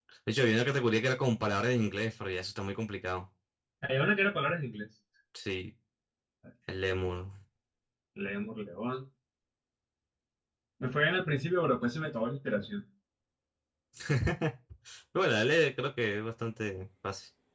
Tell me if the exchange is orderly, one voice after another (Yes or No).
Yes